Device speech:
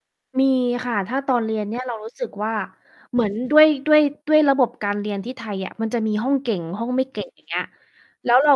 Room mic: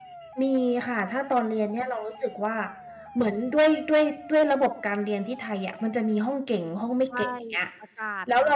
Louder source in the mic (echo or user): echo